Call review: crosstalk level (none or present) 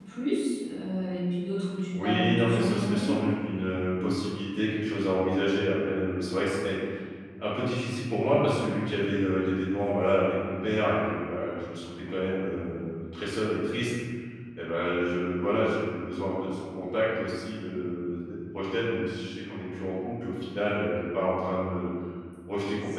present